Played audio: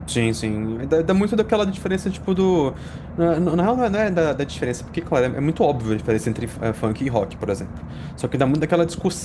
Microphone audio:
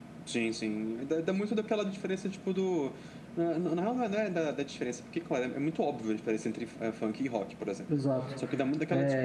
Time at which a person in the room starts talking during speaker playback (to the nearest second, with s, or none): 8 s